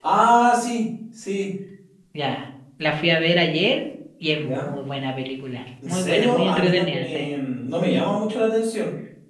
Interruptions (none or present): present